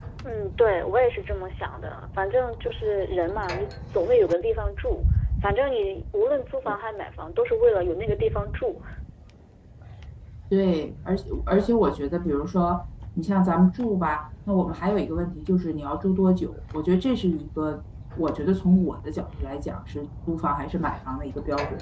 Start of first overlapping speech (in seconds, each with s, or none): none